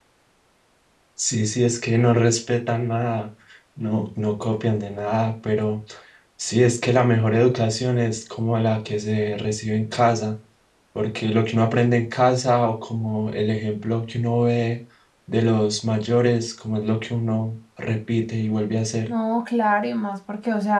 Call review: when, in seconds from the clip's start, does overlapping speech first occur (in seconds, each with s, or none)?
none